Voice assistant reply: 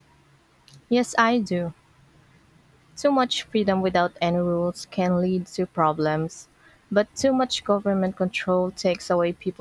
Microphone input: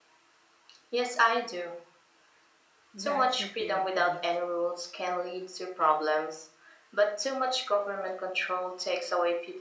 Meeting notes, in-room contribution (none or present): present